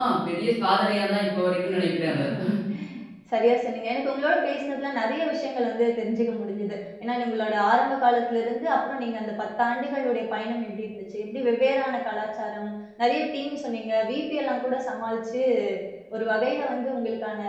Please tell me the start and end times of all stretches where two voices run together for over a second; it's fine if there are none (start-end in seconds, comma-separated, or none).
none